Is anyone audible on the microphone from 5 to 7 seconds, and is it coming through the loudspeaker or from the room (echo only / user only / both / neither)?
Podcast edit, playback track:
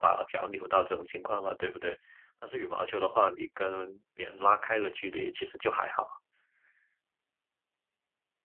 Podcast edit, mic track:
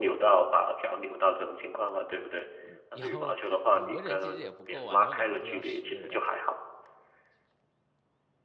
both